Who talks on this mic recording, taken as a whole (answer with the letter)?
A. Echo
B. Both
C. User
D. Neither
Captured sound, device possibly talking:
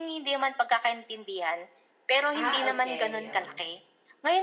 B